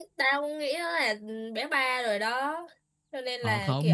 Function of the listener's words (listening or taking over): taking over